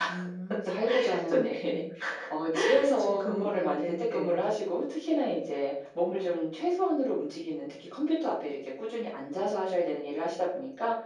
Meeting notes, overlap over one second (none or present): present